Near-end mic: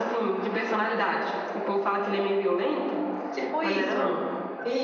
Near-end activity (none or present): present